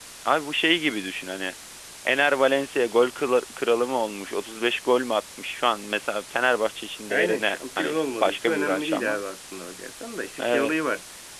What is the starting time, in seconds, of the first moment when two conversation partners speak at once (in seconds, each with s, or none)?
7.1 s